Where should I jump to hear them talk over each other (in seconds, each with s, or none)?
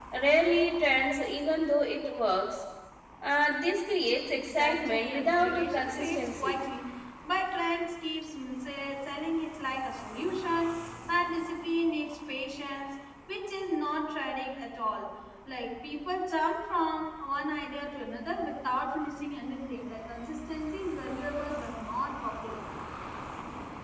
4.3 s